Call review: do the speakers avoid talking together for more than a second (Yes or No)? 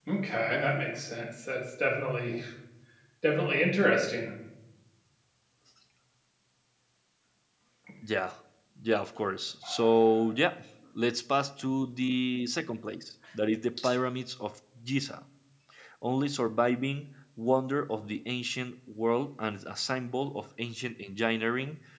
Yes